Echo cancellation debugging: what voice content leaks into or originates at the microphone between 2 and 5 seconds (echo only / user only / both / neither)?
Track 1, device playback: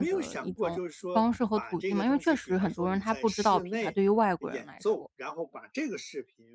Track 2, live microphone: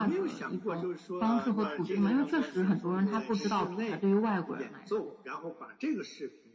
both